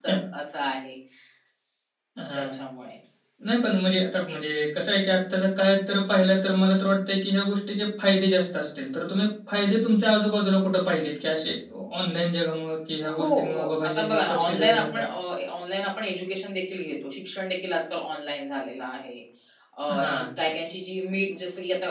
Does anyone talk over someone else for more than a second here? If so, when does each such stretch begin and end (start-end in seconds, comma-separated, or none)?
13.2-14.8